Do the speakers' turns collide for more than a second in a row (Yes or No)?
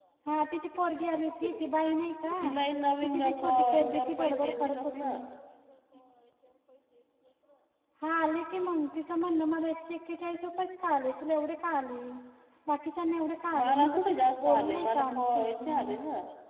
Yes